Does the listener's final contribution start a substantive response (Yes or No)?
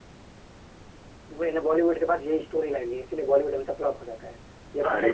Yes